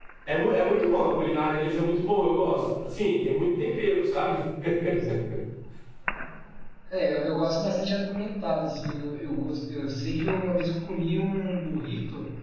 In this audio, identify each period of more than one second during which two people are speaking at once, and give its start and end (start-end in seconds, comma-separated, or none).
none